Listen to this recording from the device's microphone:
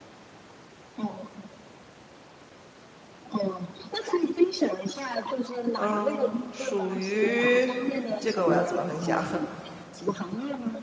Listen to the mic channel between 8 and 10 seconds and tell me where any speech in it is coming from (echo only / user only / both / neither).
both